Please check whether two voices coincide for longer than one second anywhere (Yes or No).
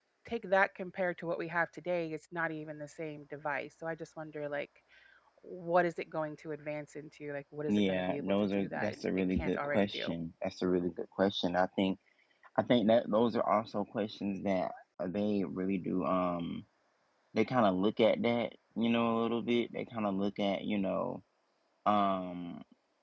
Yes